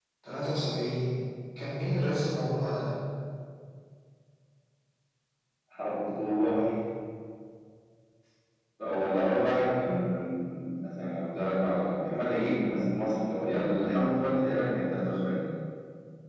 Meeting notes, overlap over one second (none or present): none